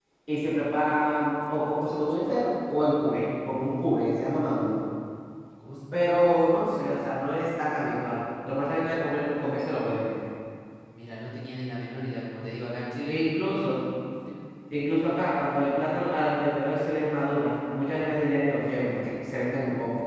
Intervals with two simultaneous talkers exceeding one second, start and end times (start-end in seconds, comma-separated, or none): none